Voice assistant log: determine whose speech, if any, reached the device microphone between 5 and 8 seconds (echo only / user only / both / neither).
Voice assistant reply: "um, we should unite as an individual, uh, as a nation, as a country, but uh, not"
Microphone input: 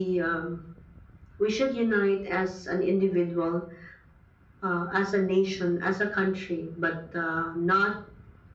echo only